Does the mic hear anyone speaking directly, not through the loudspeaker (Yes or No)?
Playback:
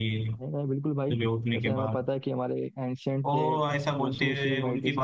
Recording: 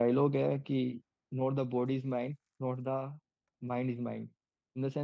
Yes